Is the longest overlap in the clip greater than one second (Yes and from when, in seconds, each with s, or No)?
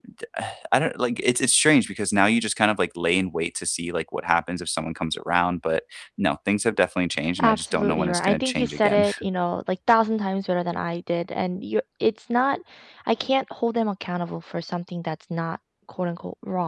Yes, from 7.4 s